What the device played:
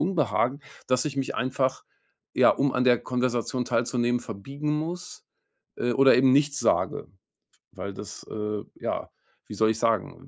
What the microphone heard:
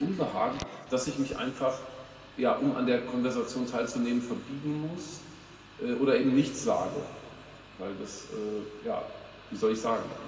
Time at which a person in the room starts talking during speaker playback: none

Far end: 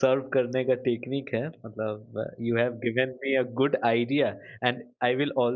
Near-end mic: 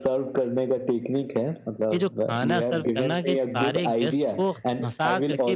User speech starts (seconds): 1.9 s

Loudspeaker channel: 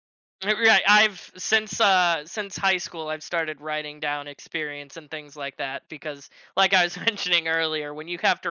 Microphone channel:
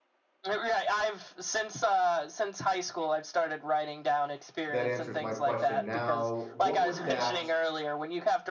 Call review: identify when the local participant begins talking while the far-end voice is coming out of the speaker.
4.7 s

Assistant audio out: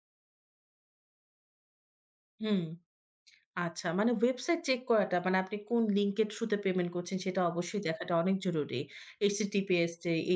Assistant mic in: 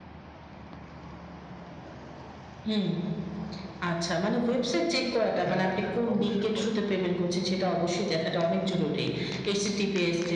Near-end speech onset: 5.4 s

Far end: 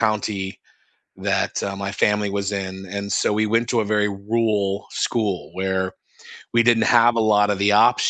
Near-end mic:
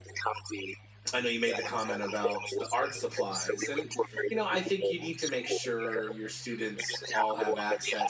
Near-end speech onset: 1.1 s

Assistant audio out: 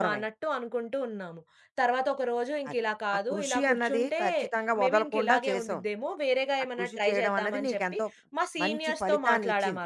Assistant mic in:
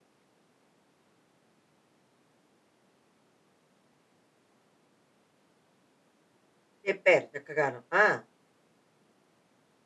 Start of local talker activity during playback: 6.8 s

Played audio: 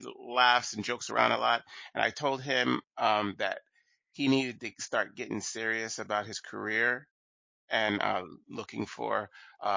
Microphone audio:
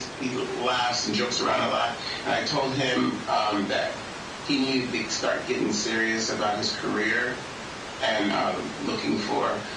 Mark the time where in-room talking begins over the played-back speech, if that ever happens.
none

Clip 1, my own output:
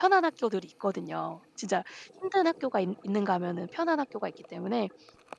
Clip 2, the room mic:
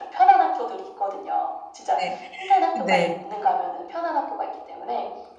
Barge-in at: 1.9 s

